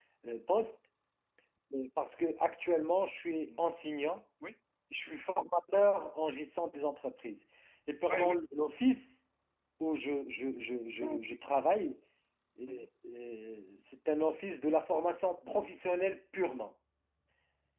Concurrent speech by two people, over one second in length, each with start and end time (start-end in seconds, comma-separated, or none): none